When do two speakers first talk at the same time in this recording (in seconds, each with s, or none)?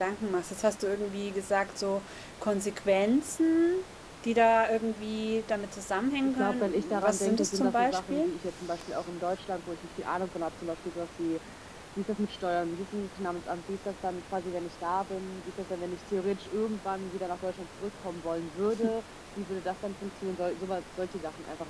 6.4 s